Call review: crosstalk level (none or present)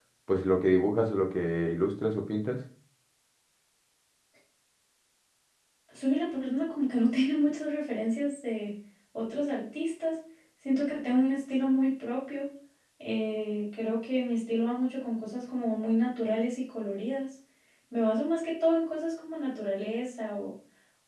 none